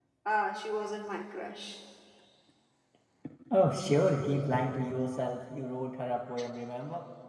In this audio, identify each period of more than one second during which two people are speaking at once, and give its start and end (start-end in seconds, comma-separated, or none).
none